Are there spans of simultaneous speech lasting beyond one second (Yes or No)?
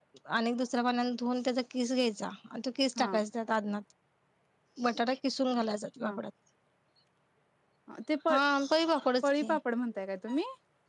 No